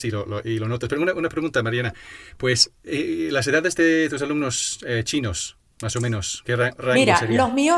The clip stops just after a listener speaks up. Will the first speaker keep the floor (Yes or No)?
No